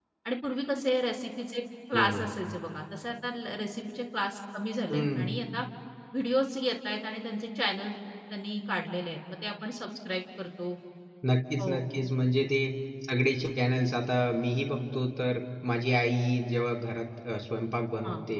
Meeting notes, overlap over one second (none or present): none